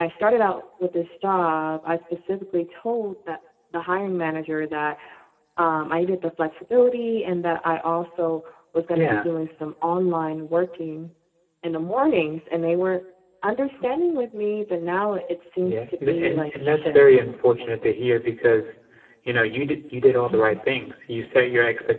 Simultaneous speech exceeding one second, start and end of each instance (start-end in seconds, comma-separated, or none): 15.6-17.0